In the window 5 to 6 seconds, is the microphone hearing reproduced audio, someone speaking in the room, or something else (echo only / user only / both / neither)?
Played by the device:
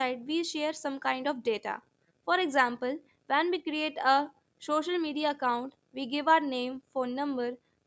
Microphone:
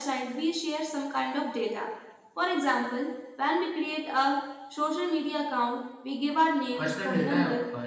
echo only